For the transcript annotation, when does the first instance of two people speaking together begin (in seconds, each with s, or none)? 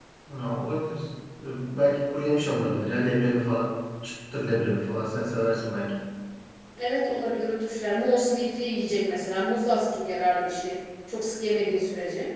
none